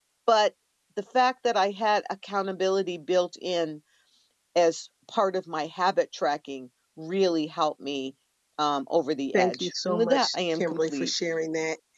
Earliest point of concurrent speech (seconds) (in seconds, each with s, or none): 9.3 s